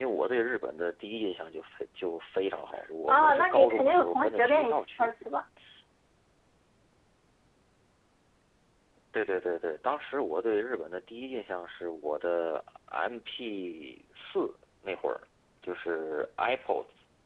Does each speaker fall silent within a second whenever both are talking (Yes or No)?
No